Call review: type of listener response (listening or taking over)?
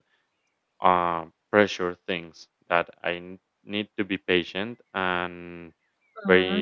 listening